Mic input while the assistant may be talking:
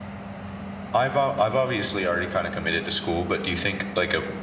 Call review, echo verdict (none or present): none